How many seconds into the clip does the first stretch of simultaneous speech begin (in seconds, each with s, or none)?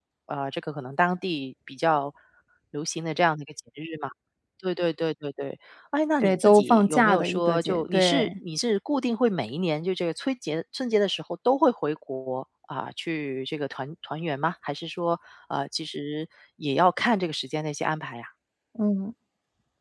6.2 s